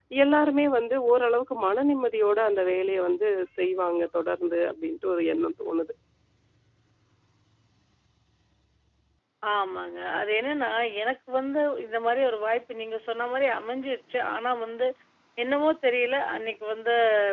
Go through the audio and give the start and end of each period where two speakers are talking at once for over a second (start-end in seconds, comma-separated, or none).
none